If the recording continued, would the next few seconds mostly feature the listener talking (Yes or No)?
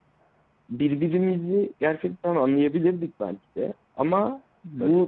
No